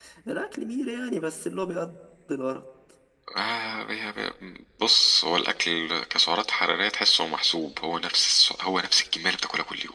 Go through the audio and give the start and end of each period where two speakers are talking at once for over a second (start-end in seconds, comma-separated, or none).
none